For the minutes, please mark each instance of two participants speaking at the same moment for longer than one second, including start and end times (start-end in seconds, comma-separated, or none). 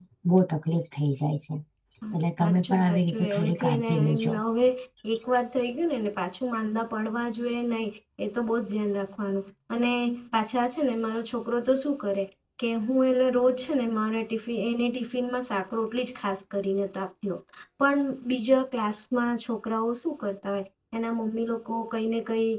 2.4-4.3